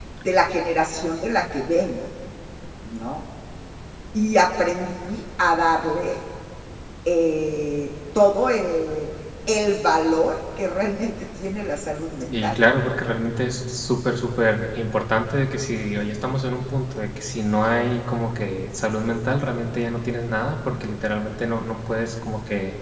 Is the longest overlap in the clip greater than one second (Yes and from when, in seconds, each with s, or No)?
No